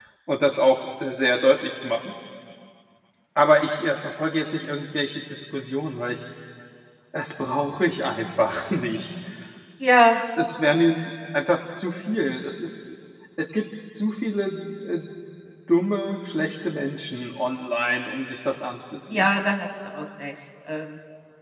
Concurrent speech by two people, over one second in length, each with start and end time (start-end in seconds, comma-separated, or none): none